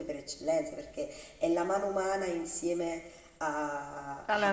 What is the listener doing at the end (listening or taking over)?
listening